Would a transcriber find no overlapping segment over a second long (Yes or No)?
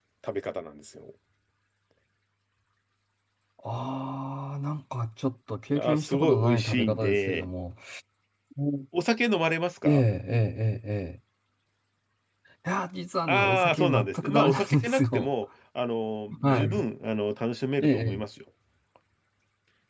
No